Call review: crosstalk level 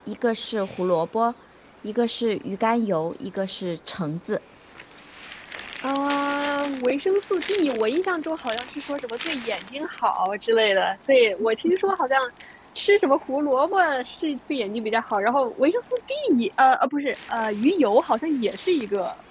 none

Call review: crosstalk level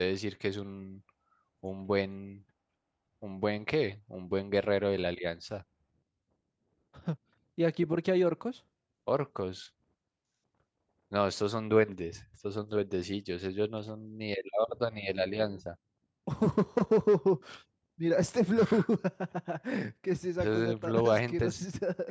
present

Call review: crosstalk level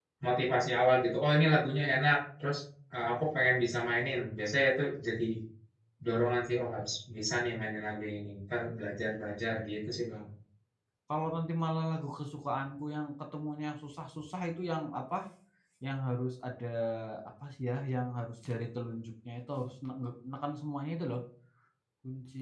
none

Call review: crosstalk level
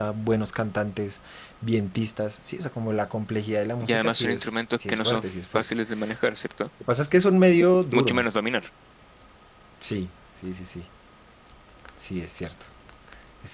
present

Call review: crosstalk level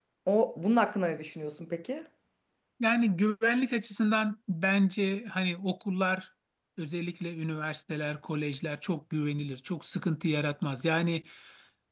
none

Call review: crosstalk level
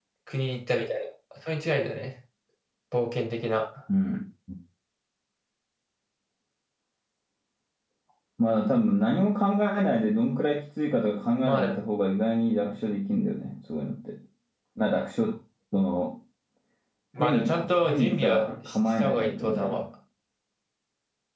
present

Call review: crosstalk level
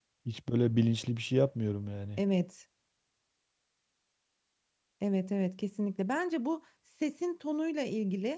none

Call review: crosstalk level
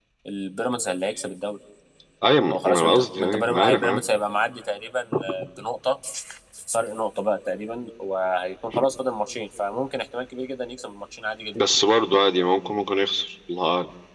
present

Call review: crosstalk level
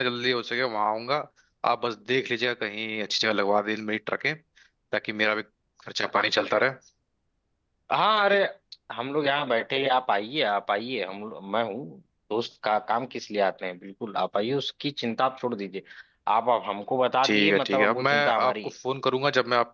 present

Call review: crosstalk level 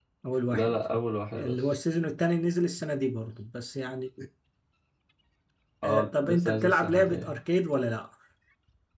present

